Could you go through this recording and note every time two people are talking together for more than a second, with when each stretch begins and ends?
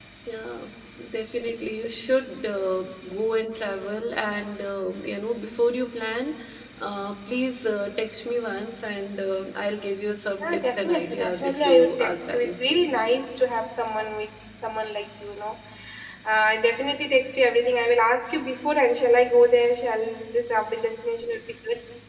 10.4-13.0

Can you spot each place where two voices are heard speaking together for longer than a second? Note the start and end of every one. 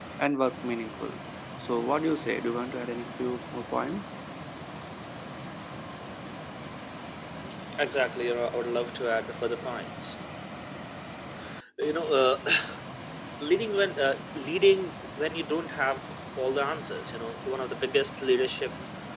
none

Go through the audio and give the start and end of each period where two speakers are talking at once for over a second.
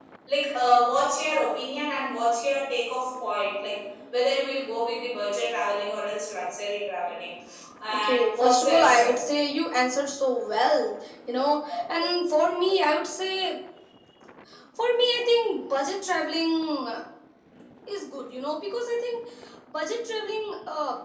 7.9-9.2

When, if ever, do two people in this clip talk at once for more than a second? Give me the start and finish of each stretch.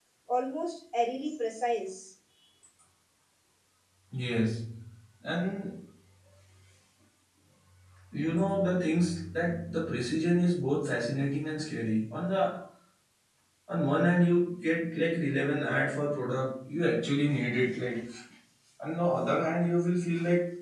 none

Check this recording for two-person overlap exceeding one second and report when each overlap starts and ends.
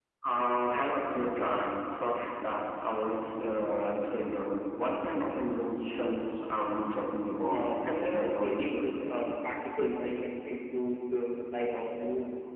7.5-8.9

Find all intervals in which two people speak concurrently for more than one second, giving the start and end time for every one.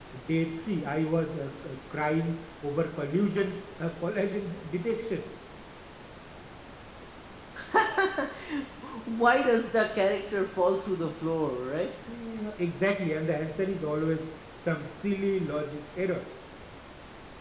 none

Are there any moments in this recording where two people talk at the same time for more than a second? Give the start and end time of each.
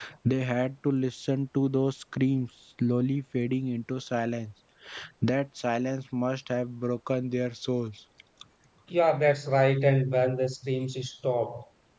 none

